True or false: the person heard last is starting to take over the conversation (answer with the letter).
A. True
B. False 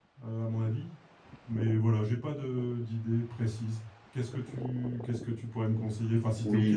A